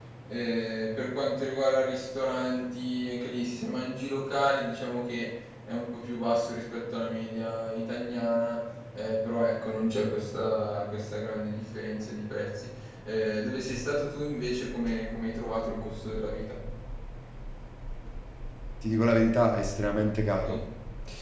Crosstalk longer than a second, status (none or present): none